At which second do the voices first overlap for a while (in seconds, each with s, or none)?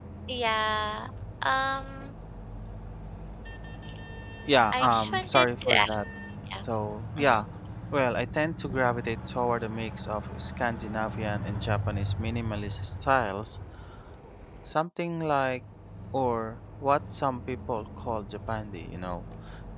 4.7 s